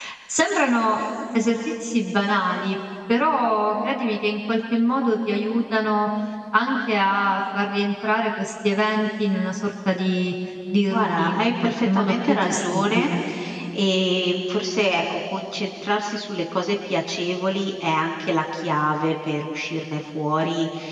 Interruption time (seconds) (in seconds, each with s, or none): 10.9 s